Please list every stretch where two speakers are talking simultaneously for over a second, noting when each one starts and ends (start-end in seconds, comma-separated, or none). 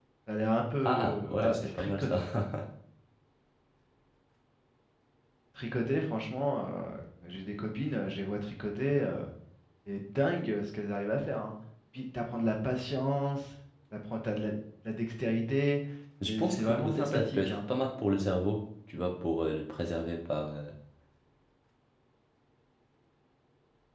0.8-2.2, 16.2-17.6